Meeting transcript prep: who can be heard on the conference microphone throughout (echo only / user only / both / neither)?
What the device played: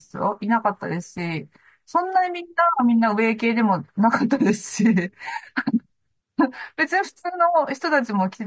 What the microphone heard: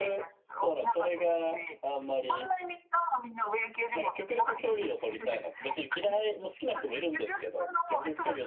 both